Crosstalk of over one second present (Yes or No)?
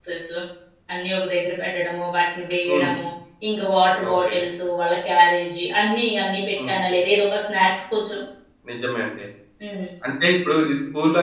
No